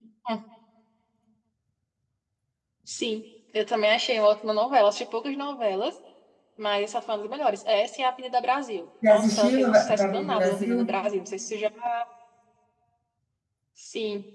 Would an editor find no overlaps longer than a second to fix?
No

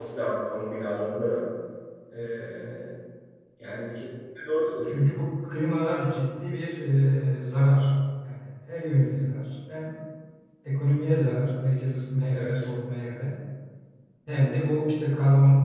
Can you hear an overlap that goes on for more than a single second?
No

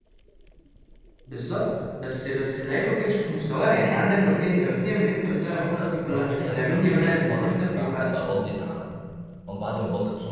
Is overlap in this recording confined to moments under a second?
No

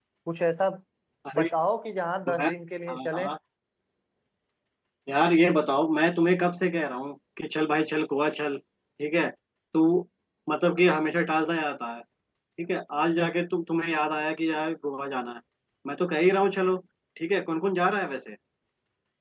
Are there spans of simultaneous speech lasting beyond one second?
No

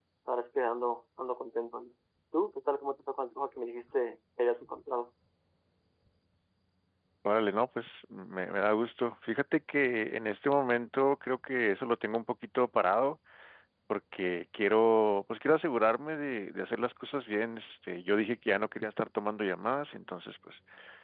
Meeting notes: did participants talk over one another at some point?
No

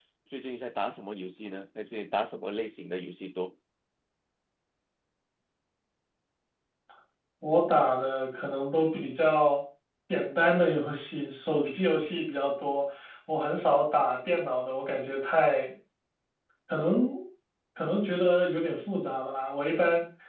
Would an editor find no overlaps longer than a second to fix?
Yes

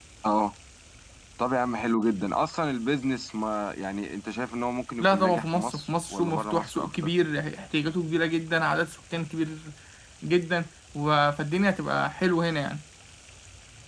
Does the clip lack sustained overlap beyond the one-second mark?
No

